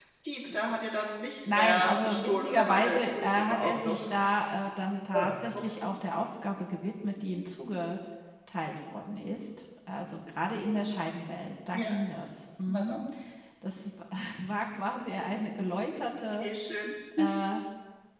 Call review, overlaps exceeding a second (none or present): present